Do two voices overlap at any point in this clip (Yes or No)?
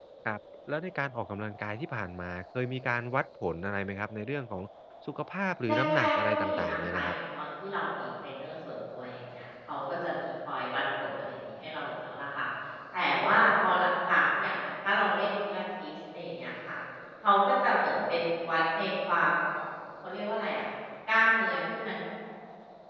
Yes